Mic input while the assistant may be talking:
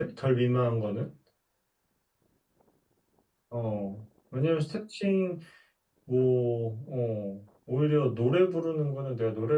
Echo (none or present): none